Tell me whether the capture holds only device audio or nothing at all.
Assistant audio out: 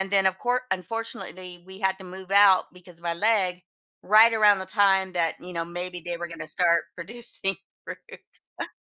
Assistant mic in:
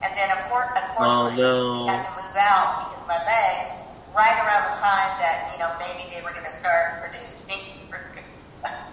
No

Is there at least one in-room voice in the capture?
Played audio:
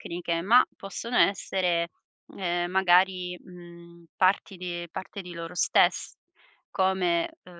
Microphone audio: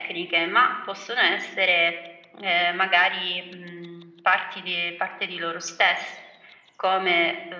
No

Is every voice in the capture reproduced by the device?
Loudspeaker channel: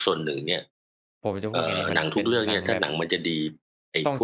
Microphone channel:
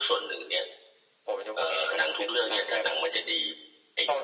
Yes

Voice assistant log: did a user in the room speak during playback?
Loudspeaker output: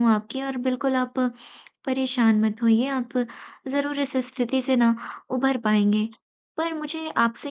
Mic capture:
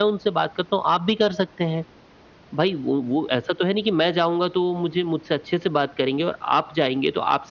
Yes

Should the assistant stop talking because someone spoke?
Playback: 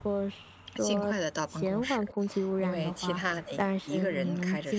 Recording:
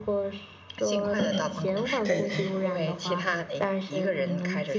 Yes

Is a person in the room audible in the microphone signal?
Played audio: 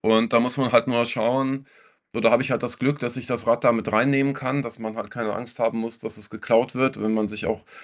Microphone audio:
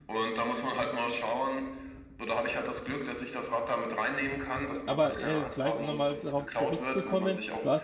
Yes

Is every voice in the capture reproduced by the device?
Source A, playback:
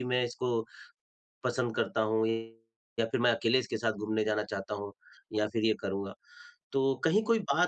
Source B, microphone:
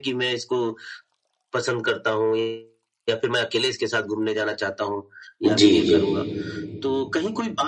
No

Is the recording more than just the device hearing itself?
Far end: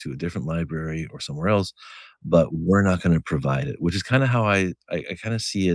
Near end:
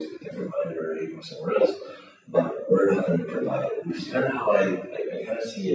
No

